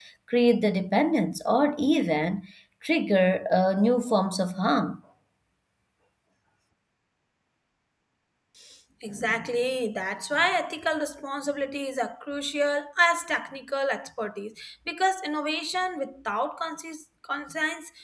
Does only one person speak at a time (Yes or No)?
Yes